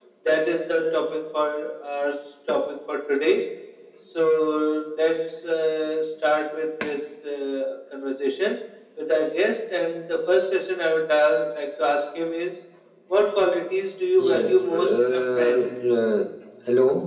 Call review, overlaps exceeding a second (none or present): present